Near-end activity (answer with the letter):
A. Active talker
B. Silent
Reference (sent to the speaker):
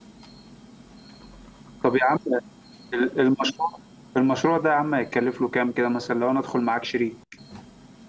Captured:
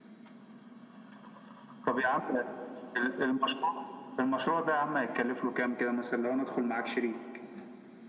B